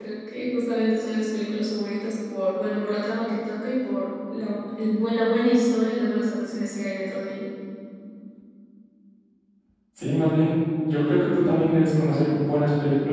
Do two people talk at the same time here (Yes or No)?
No